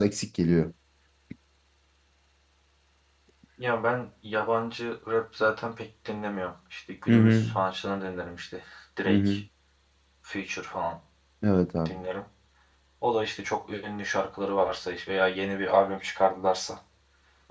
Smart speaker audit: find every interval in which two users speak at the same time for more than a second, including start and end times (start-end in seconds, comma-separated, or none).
none